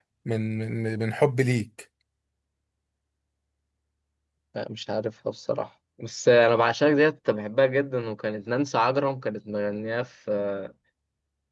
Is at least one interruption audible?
No

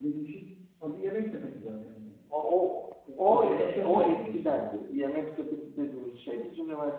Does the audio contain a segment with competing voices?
Yes, from 3.3 s

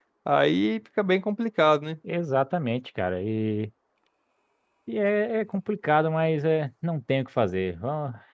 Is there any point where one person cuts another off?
No

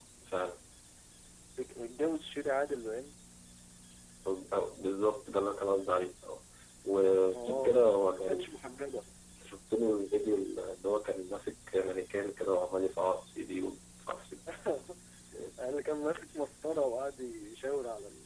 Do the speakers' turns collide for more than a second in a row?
No

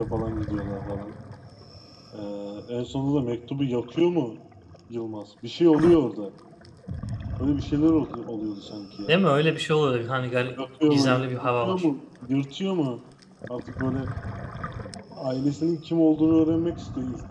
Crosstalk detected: Yes, from 10.5 s

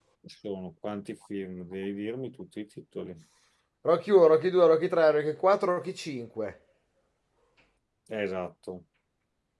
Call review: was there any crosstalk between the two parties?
No

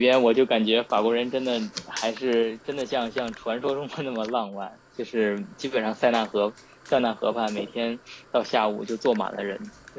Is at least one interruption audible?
No

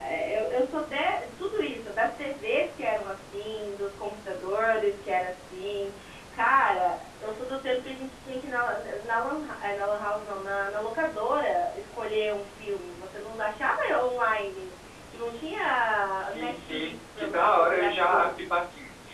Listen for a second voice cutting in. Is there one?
Yes, from 16.2 s

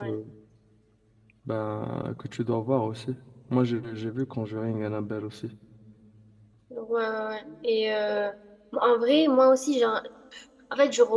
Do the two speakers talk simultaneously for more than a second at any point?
No

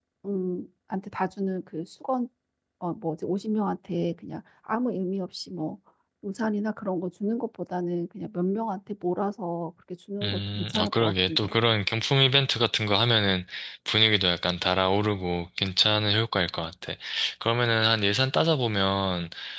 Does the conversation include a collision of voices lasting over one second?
Yes, from 10.2 s

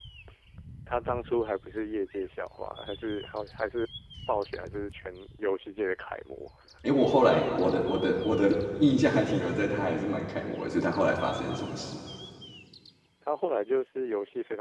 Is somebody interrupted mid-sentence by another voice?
No

